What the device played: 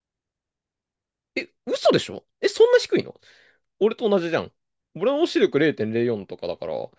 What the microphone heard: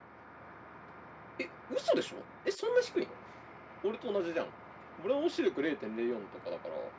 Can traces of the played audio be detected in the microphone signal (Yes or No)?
Yes